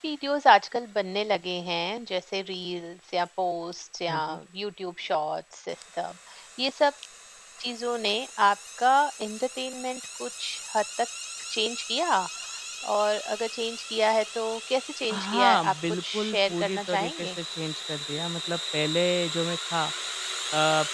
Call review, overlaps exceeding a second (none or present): present